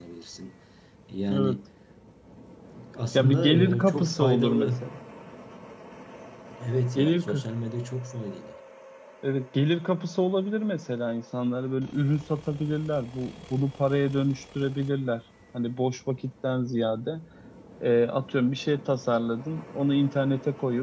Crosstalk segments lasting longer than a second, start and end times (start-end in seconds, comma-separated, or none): 3.1-4.8